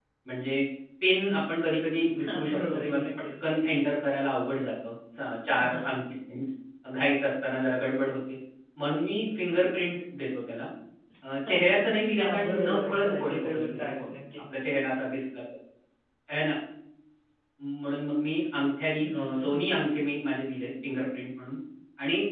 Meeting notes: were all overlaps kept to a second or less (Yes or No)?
No